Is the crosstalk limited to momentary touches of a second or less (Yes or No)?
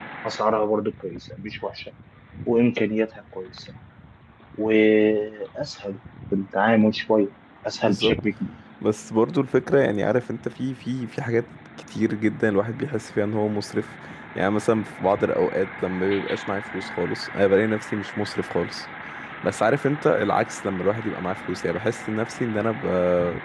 Yes